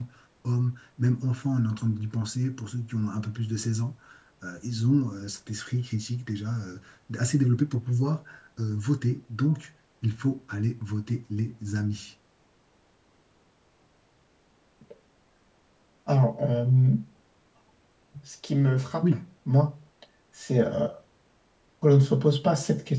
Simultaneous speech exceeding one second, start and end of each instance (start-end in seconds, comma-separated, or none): none